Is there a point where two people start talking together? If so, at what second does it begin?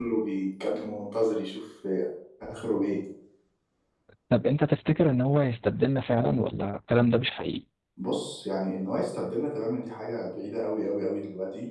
none

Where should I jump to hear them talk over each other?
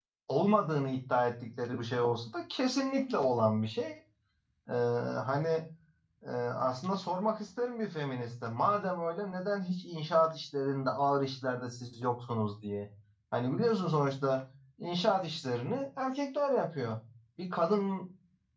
none

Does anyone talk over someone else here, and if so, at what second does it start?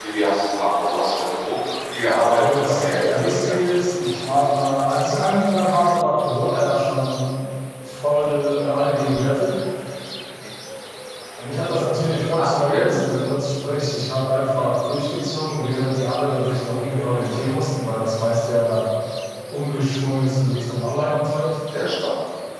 2.3 s

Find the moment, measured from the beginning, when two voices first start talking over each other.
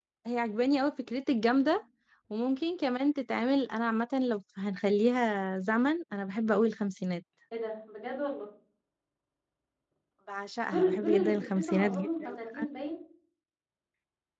10.7 s

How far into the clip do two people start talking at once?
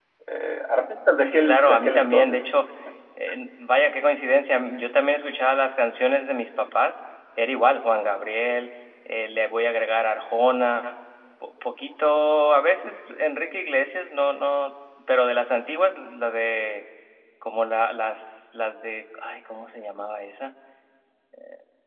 1.2 s

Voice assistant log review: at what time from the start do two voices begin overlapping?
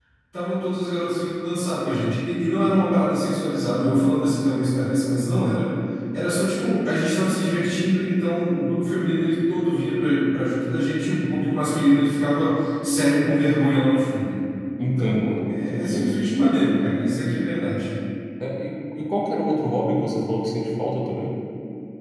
14.8 s

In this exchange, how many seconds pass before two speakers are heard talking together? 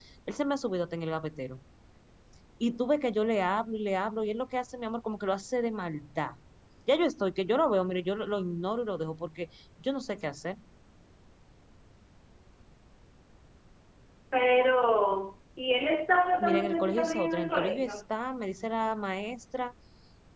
16.4 s

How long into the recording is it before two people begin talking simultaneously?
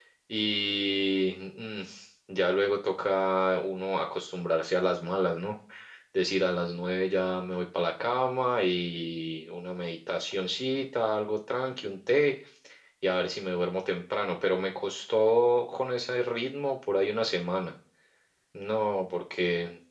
none

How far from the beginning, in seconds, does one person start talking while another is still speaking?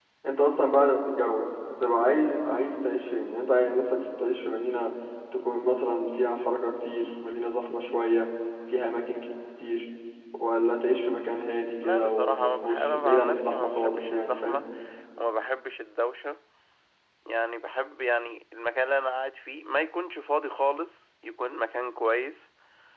11.8 s

